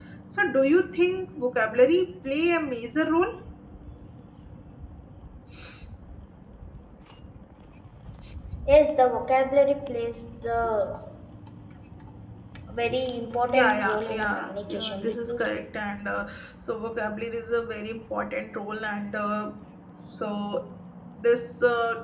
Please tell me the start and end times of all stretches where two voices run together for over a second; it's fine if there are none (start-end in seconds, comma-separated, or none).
13.5-15.5